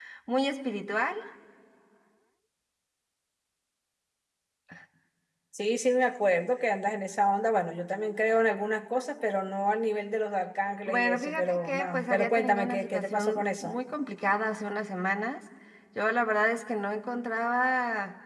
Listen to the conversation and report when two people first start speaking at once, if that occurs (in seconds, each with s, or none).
10.8 s